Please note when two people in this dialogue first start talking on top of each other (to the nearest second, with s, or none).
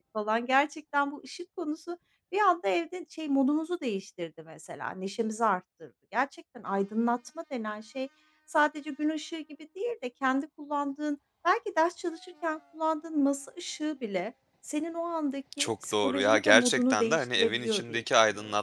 16 s